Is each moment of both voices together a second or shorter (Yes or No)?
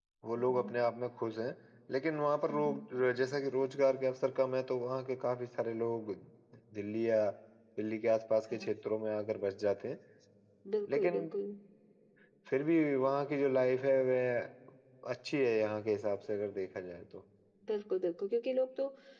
Yes